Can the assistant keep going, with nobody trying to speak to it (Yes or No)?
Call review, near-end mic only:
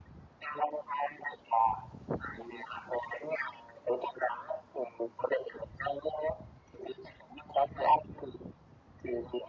Yes